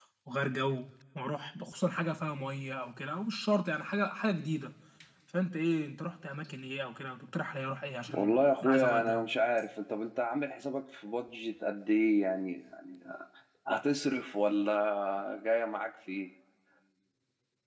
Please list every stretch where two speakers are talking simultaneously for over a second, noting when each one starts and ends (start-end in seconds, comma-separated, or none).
8.1-9.3